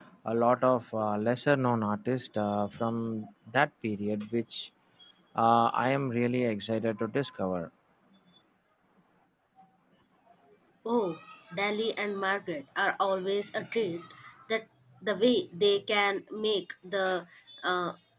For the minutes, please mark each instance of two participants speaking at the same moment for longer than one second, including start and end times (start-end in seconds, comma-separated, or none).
none